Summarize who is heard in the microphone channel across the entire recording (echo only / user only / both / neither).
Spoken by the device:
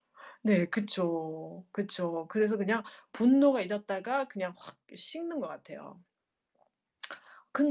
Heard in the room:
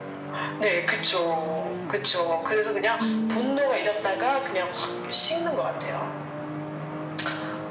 both